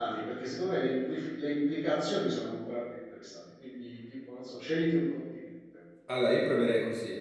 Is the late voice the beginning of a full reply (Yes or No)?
Yes